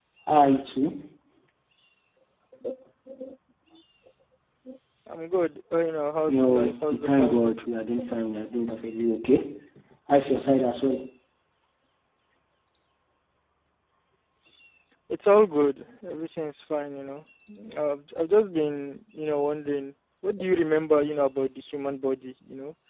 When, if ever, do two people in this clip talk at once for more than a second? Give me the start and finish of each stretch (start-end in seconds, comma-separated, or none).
6.3-7.5